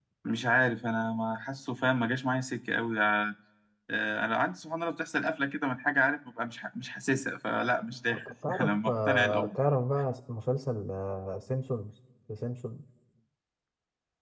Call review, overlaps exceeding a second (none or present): present